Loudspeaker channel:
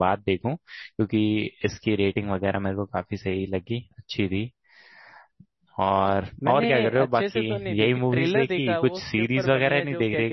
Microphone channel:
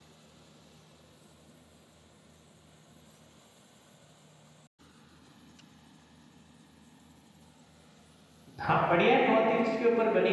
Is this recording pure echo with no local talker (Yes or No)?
No